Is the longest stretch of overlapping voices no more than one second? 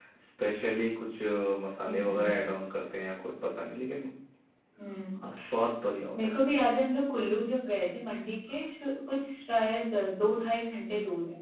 Yes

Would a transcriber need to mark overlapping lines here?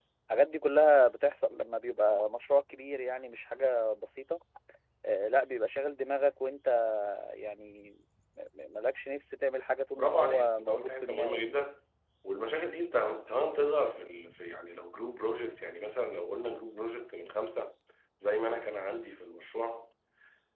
Yes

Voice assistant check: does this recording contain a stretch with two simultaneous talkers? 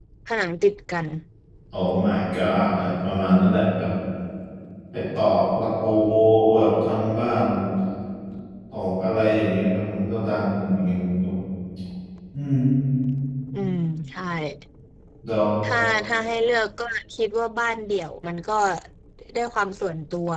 No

